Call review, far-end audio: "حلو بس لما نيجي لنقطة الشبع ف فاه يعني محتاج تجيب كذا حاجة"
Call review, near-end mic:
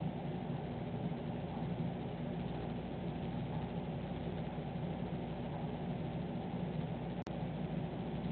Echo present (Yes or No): No